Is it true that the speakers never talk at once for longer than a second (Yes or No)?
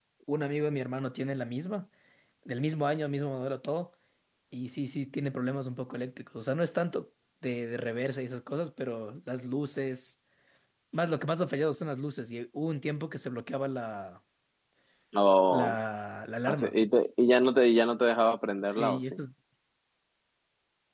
Yes